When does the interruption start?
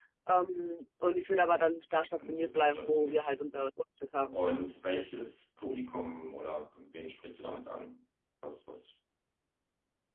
2.2 s

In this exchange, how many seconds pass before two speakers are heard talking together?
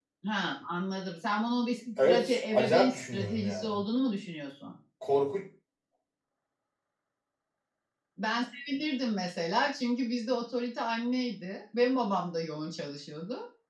2.0 s

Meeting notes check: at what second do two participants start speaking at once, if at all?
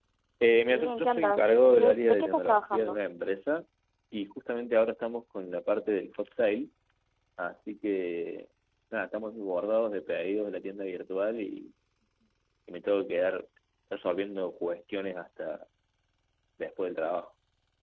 0.7 s

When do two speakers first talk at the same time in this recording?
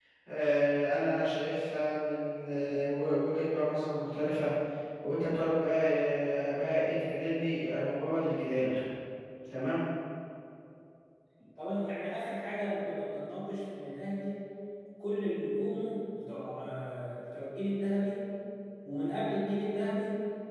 none

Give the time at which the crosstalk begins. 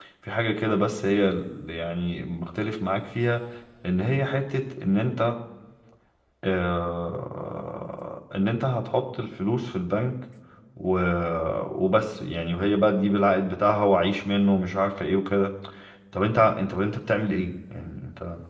none

